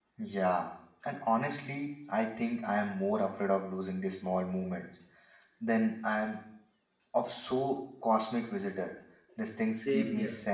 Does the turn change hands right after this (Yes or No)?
Yes